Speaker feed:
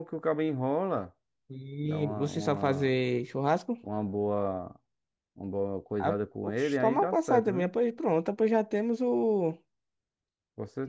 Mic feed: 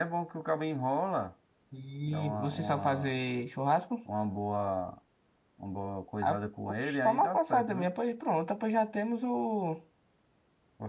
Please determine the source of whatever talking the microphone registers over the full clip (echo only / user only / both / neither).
echo only